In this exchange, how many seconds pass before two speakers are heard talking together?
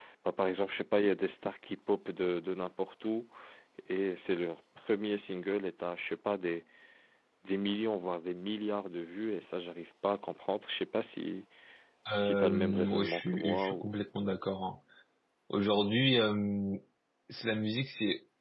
12.2 s

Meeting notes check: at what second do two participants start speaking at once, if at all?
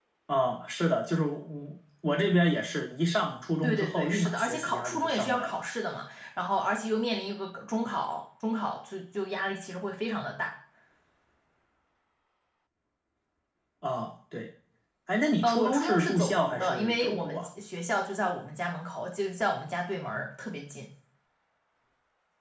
3.6 s

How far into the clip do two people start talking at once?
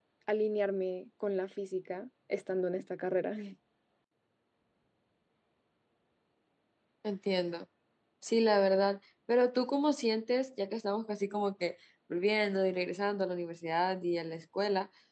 none

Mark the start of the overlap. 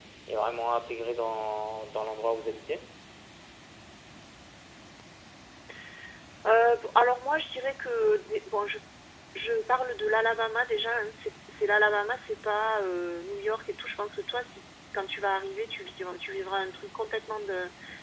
none

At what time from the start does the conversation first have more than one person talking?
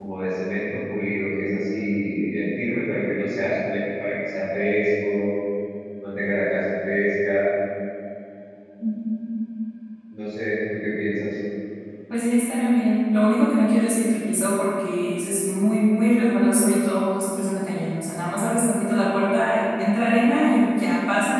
none

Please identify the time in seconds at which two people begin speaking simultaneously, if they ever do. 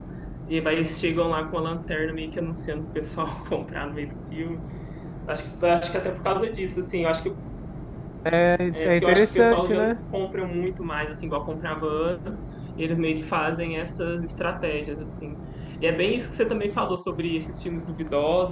8.7 s

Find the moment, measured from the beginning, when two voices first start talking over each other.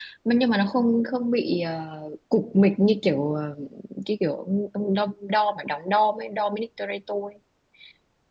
none

